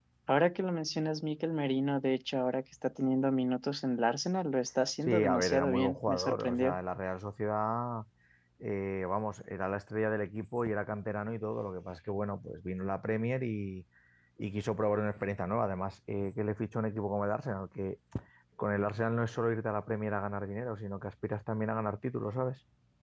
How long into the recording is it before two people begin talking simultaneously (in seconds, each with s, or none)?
5.1 s